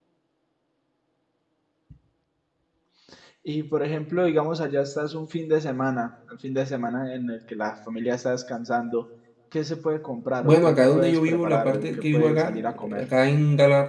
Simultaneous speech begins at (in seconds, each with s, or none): 10.4 s